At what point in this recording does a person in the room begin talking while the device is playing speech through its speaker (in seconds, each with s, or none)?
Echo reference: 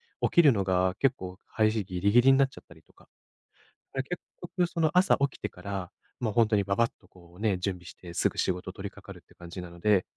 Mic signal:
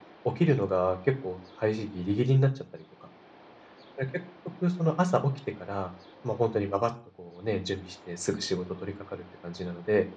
none